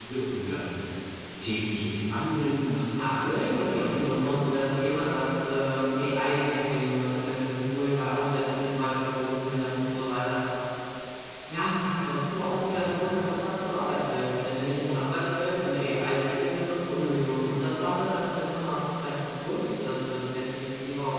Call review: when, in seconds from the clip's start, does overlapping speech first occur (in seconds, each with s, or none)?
2.9 s